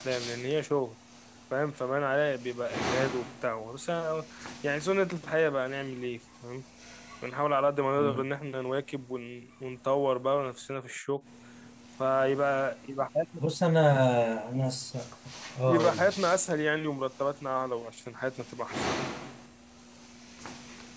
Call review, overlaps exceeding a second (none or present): none